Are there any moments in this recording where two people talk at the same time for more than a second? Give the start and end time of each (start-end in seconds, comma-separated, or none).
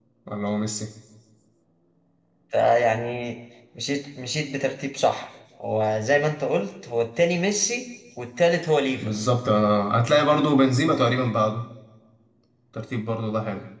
none